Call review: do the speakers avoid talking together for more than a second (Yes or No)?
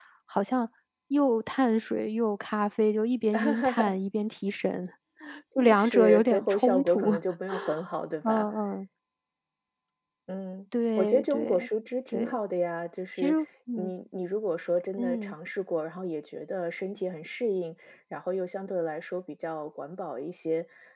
No